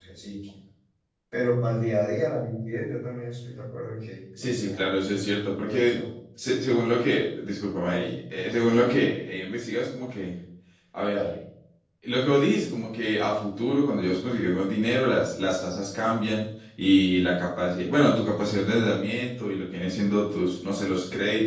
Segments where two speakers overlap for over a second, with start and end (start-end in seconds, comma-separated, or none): 4.4-6.0